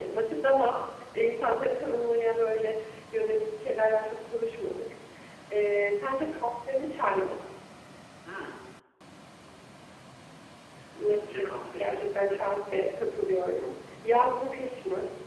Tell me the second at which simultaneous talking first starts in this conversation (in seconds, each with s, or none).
11.1 s